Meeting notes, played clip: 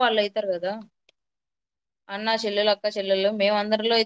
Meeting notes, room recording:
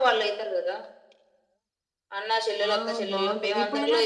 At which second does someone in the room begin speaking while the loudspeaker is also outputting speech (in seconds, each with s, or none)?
2.7 s